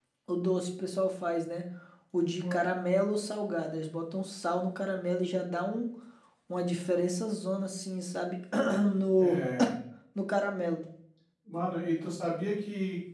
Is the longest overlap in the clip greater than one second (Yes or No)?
No